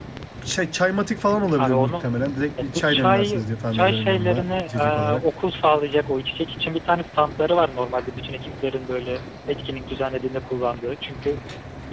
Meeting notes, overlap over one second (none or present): present